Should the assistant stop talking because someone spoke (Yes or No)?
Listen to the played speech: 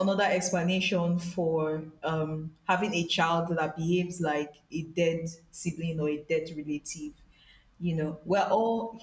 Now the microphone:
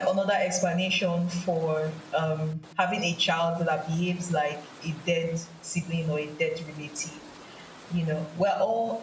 No